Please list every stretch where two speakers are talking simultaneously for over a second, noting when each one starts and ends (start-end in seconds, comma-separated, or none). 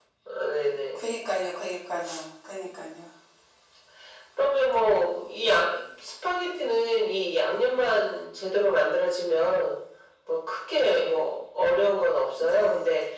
none